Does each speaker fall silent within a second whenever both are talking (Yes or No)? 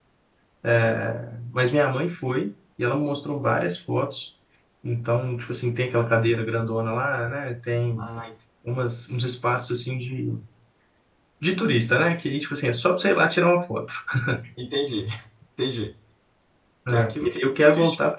No